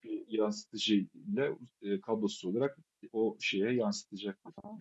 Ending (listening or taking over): taking over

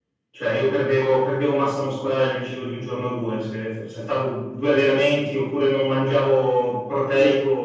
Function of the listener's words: taking over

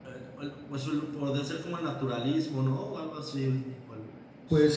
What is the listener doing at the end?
taking over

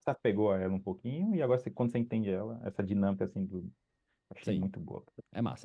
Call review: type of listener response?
taking over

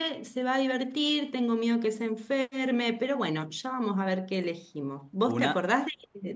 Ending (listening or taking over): listening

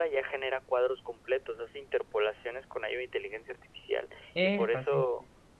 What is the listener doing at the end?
listening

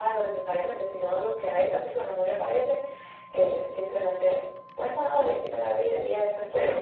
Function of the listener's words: taking over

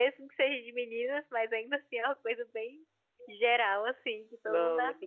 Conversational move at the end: taking over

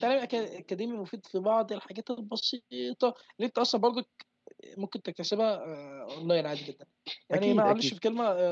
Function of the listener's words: listening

